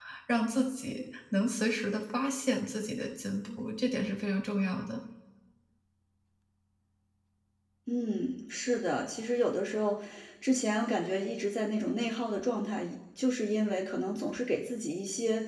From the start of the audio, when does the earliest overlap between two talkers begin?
none

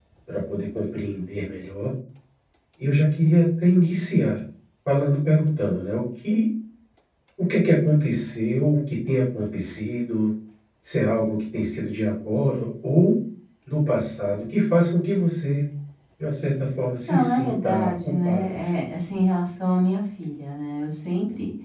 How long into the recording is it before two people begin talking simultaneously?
17.1 s

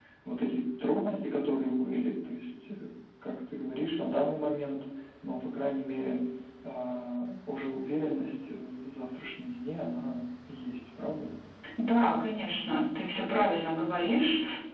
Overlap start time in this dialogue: none

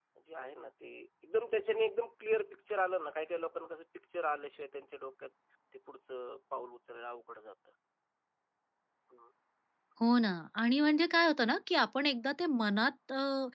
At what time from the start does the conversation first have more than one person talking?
none

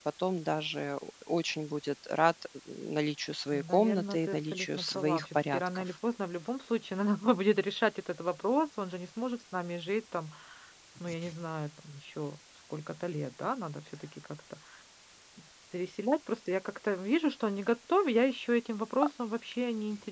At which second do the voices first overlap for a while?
3.5 s

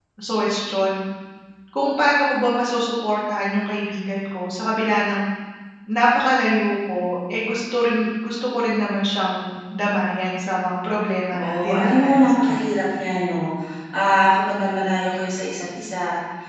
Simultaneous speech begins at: 11.3 s

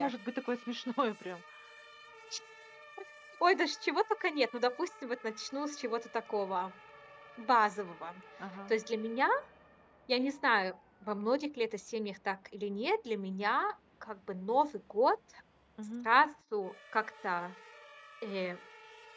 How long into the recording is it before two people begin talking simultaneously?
none

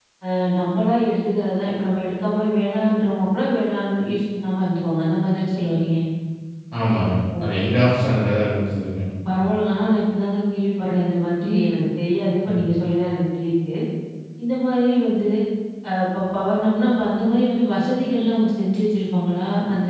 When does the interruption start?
none

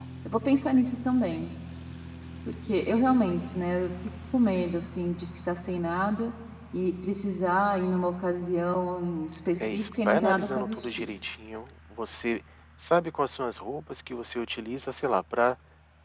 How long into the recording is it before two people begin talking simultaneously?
9.6 s

